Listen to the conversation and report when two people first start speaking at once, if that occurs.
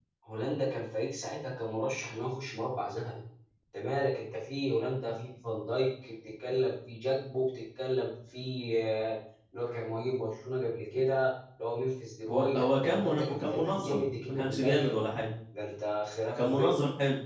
12.3 s

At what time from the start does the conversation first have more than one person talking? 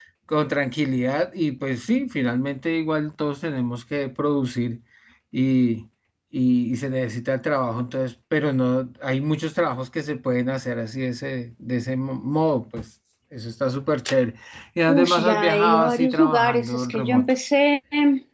14.9 s

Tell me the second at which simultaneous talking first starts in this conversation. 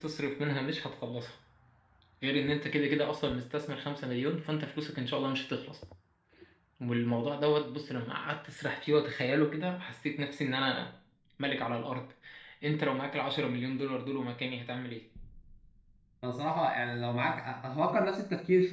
none

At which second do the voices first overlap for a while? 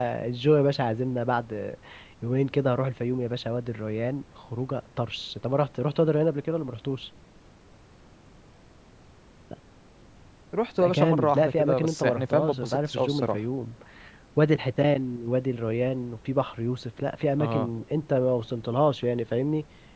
10.8 s

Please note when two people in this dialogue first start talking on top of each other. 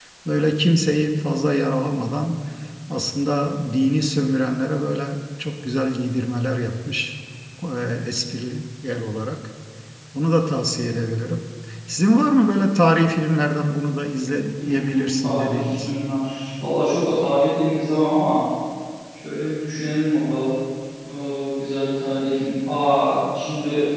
14.6 s

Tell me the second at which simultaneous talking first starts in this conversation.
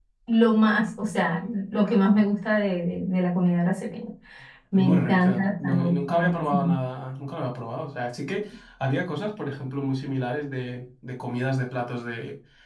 4.7 s

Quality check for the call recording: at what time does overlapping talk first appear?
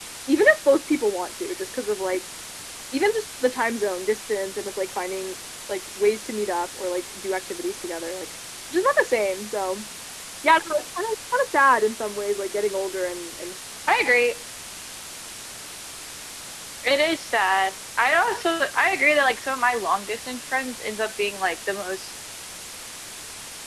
none

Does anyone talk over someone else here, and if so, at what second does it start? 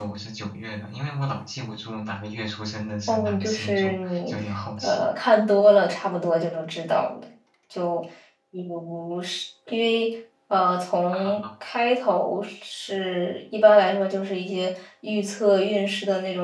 3.1 s

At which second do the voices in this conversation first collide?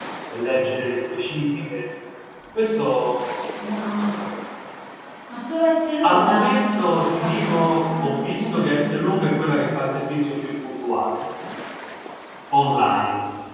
6.0 s

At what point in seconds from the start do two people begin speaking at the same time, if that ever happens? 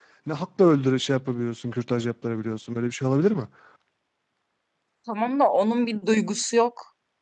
none

